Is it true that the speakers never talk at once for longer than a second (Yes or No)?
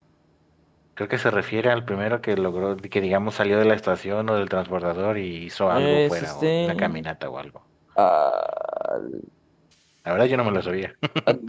No